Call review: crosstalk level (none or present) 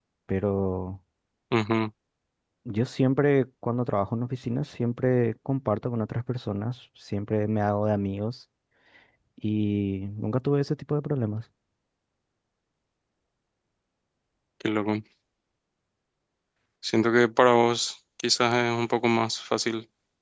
none